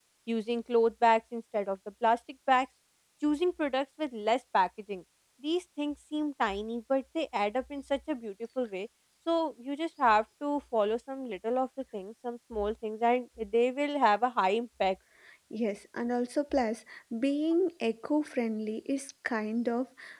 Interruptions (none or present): none